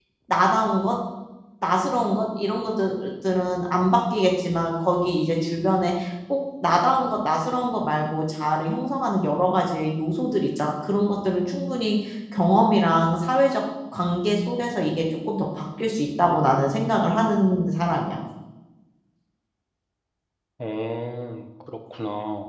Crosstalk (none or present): none